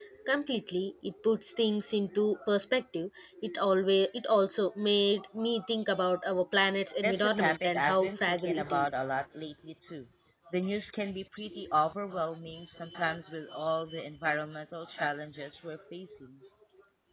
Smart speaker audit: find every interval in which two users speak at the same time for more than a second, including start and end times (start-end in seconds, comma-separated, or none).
7.0-9.0